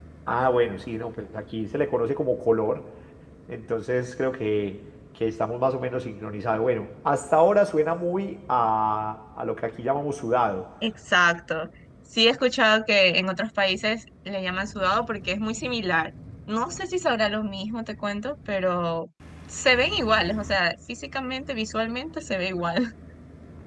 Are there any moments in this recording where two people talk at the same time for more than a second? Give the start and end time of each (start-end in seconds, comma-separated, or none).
none